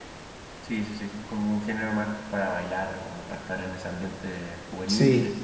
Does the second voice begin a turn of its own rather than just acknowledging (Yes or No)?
No